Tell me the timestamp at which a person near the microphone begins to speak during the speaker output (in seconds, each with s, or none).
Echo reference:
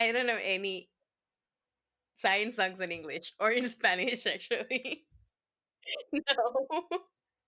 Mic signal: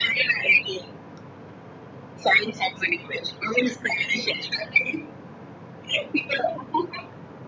none